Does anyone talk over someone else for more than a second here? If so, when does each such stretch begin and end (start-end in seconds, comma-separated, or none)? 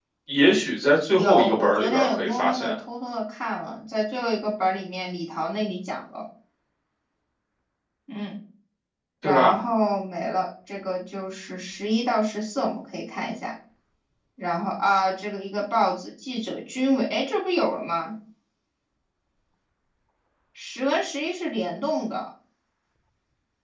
1.2-2.8